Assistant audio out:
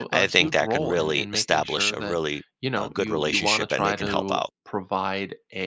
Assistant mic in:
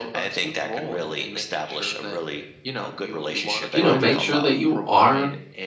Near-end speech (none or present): present